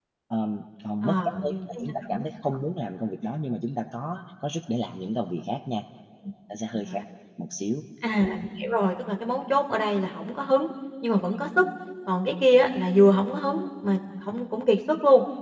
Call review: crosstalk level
present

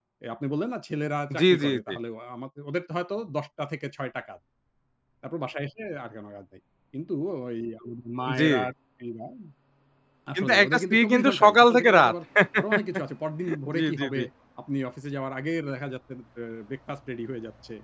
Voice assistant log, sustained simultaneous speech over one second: present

